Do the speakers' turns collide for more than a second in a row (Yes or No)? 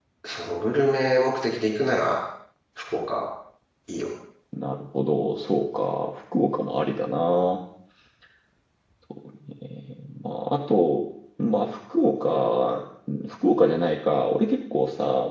No